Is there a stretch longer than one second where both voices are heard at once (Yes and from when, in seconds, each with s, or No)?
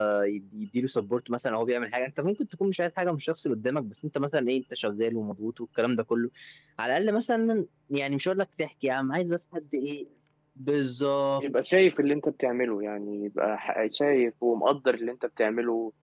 No